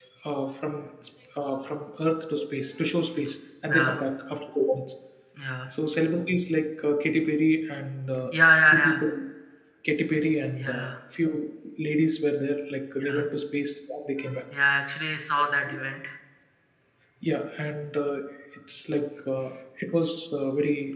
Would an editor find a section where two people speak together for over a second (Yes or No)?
No